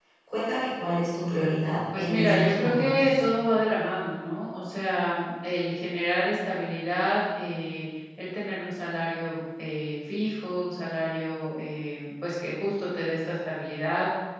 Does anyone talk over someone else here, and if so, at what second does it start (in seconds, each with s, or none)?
1.9 s